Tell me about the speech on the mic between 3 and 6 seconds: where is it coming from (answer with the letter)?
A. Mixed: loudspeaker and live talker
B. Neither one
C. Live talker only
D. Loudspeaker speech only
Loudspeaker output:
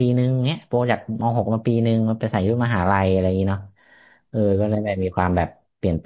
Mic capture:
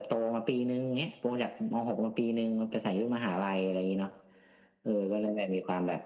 D